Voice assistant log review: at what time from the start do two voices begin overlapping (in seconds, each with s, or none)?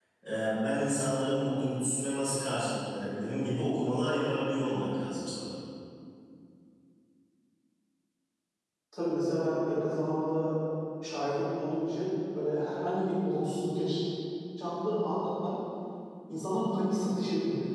none